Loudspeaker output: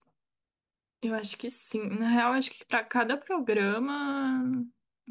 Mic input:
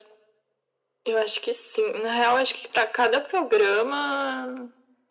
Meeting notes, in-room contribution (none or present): none